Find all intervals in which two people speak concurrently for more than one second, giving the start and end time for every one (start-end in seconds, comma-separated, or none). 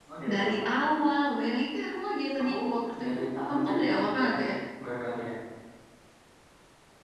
3.0-4.6